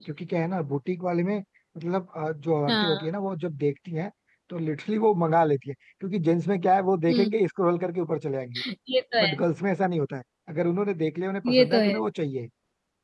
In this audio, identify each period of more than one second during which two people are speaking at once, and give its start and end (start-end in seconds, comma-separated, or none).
none